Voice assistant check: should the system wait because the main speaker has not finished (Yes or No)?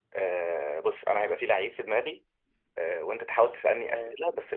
Yes